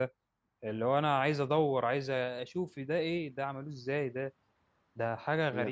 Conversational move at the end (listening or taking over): taking over